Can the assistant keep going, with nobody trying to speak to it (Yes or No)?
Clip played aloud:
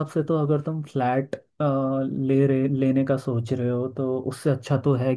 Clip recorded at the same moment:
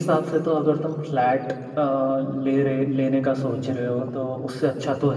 Yes